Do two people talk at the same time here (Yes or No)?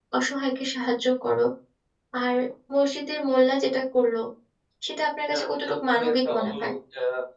Yes